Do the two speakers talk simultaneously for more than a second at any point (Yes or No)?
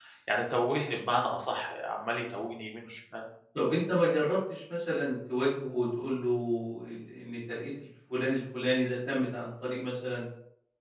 No